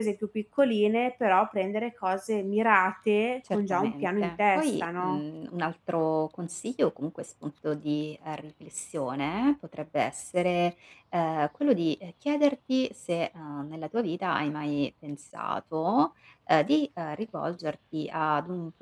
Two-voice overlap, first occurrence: 3.5 s

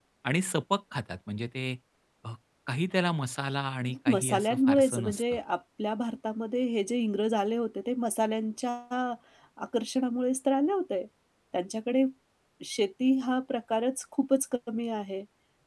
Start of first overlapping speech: 3.9 s

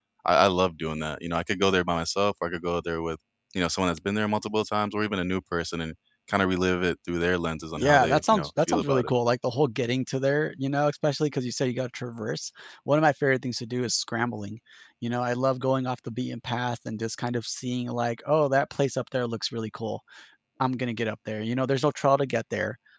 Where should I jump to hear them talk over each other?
7.8 s

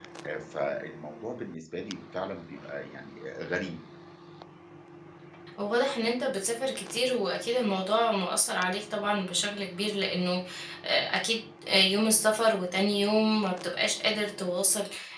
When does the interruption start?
none

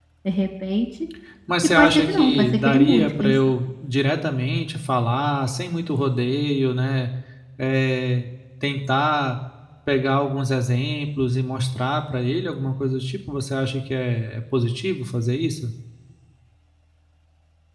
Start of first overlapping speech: 1.8 s

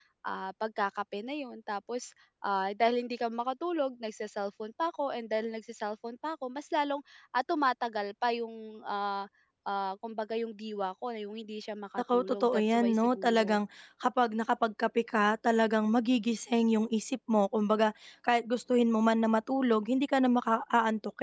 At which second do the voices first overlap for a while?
12.1 s

